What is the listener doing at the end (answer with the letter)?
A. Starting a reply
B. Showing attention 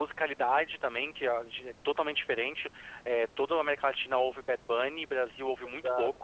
B